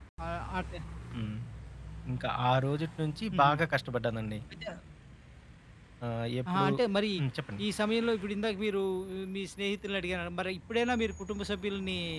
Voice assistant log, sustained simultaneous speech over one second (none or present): none